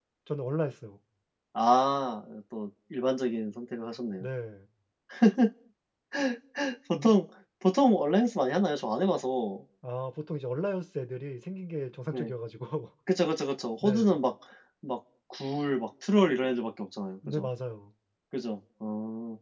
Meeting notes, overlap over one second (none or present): none